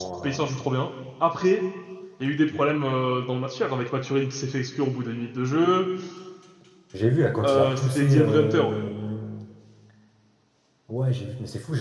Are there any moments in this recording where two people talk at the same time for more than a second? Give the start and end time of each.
7.4-8.8

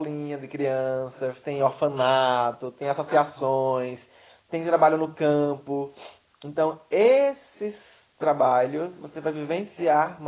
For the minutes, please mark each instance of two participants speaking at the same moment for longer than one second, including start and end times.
none

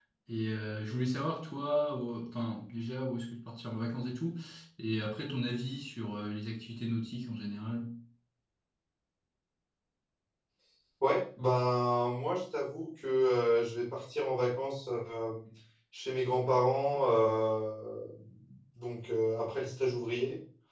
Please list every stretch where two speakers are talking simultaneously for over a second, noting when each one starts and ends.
none

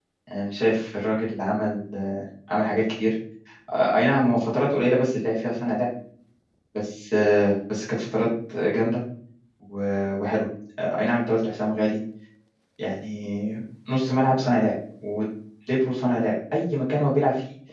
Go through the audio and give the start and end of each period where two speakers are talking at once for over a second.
none

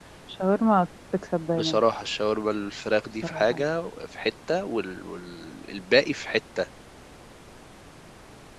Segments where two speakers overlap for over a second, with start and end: none

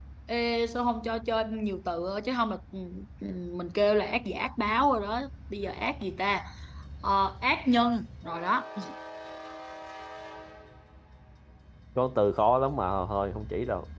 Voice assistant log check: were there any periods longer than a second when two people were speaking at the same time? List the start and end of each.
none

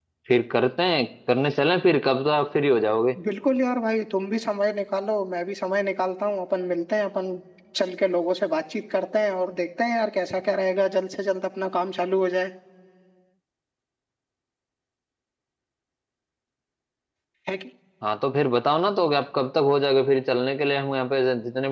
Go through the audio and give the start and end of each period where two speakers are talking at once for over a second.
none

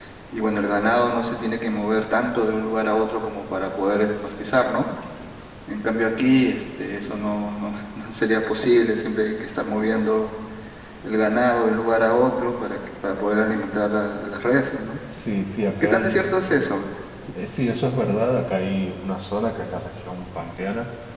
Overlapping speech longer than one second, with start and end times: none

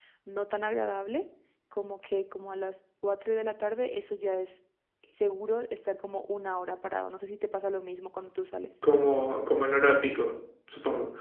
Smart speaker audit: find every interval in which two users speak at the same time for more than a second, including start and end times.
none

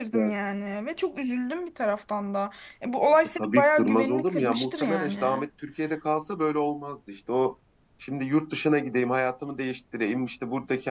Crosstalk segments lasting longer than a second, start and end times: 3.2-5.4

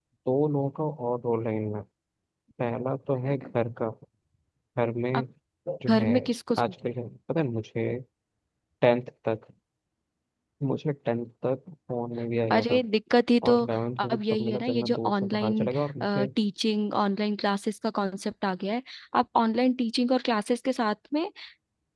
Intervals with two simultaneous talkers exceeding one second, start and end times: 14.0-16.2

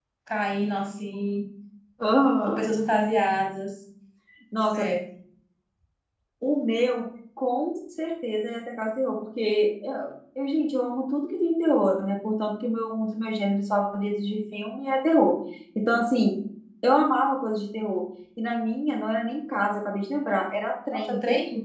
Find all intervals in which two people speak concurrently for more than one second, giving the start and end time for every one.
none

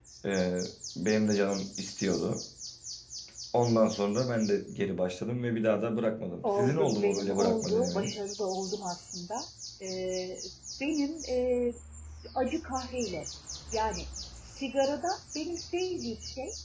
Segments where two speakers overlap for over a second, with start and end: 6.4-8.1

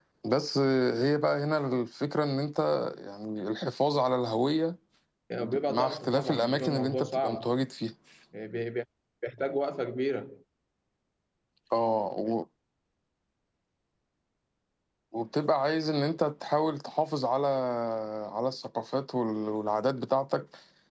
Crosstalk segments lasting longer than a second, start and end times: 5.4-7.5

